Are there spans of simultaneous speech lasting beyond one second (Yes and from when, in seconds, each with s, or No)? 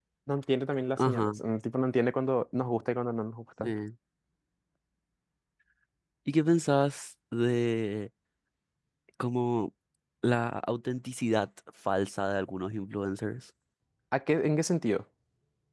No